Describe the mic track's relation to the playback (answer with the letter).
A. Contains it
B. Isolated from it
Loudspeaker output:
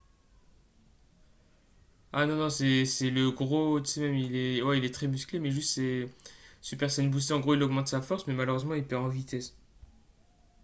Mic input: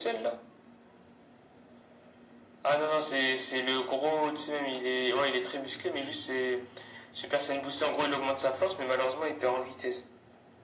A